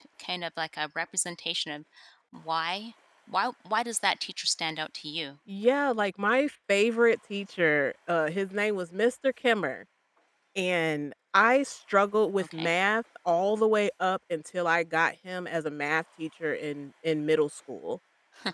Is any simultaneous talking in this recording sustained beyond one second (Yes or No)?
No